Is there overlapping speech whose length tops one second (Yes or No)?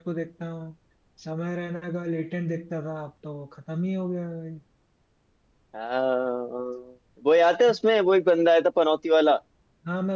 No